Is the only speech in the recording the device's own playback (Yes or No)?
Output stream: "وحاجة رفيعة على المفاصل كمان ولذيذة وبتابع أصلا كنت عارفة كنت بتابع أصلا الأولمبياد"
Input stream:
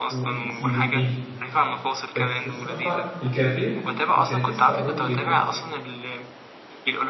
No